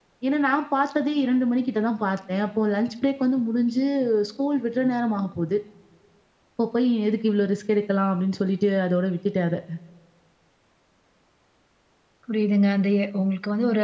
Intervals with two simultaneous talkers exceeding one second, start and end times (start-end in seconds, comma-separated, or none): none